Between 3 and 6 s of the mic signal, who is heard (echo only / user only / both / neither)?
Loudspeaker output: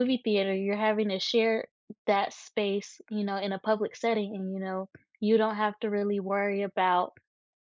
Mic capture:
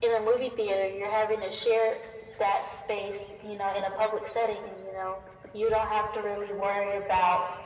echo only